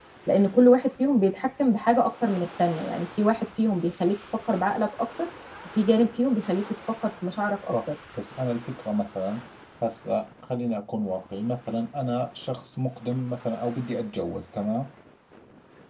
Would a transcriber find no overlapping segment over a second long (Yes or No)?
Yes